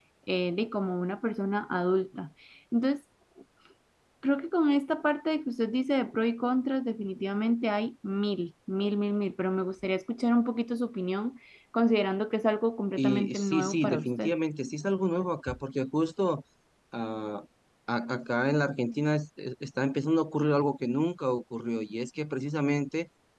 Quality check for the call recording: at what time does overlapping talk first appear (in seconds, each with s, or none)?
13.0 s